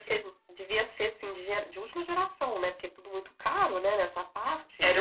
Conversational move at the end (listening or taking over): taking over